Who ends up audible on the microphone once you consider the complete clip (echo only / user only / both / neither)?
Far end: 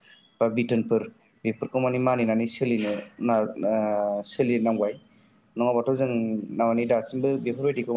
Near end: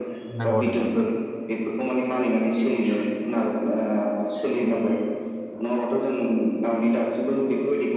both